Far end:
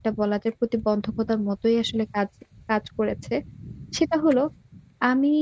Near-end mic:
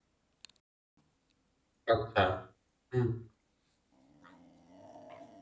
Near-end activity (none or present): present